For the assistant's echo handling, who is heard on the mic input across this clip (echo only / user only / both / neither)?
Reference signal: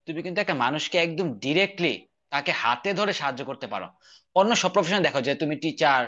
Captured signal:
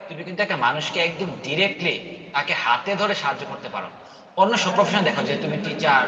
both